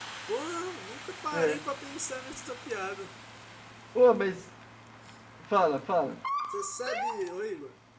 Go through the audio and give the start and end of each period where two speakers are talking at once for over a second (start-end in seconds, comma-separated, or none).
none